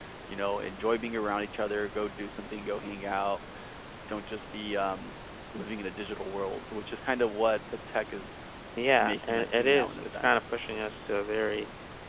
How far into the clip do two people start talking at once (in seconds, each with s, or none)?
9.0 s